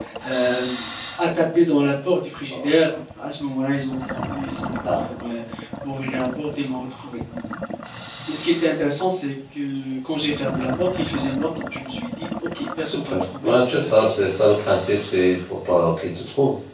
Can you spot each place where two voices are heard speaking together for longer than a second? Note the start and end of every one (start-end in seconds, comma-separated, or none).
12.8-14.2